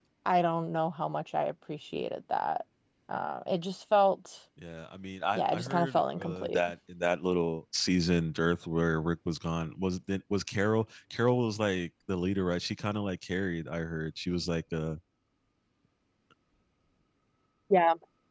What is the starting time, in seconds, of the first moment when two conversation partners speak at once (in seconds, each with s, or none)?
5.3 s